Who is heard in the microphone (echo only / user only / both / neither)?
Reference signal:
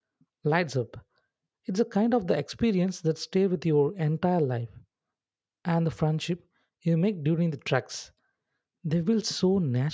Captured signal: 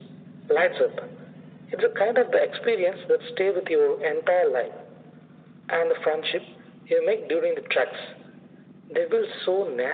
echo only